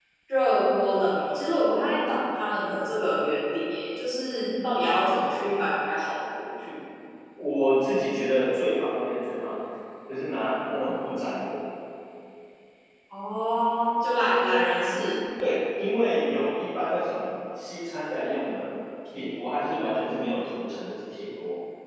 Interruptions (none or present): none